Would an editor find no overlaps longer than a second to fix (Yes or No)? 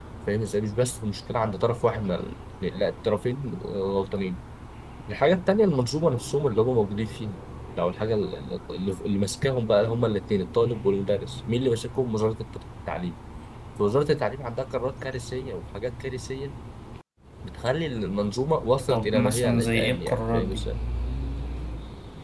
No